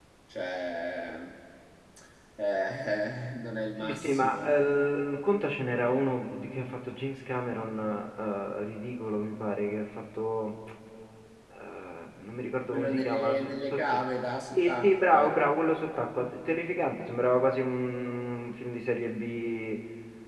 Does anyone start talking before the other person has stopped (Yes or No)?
Yes